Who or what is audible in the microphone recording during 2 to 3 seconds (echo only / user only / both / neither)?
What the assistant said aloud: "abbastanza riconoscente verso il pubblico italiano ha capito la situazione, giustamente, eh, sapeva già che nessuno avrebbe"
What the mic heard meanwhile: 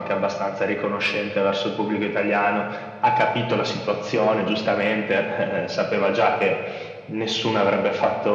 echo only